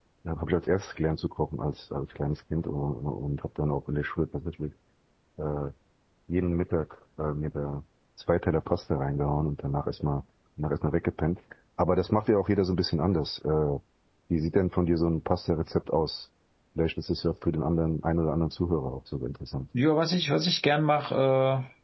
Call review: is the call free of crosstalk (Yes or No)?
Yes